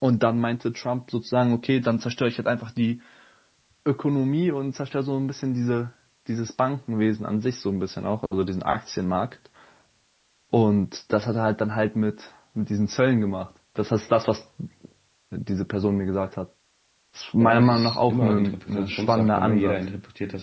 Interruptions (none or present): present